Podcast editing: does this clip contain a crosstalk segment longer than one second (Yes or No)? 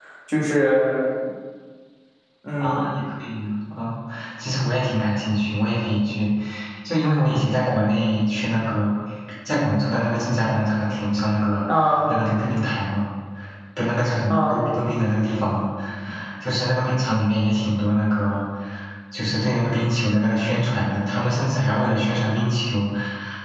No